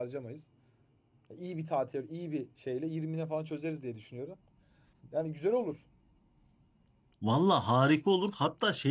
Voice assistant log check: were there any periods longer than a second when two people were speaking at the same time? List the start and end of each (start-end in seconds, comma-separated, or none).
none